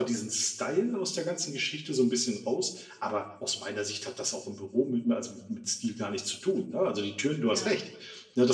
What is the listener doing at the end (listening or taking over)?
listening